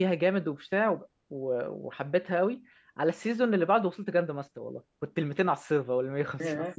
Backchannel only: Yes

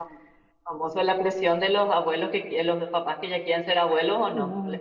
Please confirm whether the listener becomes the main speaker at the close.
Yes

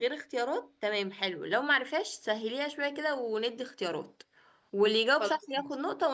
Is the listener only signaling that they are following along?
Yes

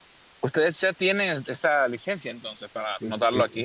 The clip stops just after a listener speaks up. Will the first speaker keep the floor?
No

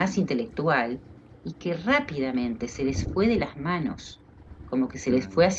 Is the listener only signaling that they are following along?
Yes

